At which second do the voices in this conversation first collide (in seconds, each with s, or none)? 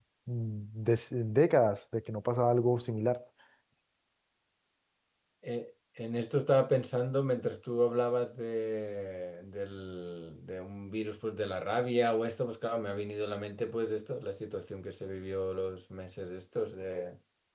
none